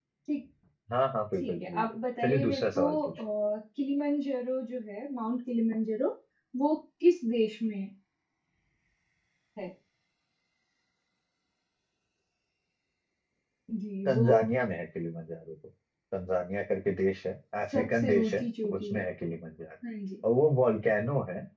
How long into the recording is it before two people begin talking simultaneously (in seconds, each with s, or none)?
1.4 s